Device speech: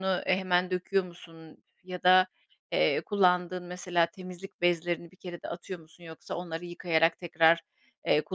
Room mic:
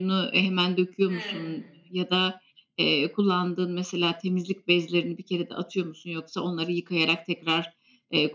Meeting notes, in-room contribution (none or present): present